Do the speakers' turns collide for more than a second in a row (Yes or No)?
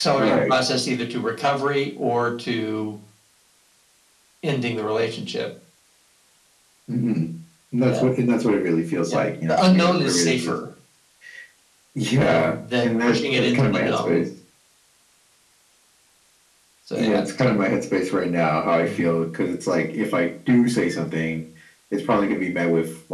Yes